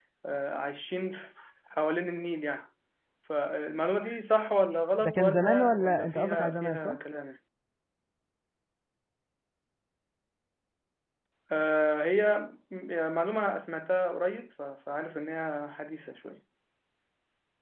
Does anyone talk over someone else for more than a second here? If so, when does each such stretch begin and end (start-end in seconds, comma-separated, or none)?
5.0-7.0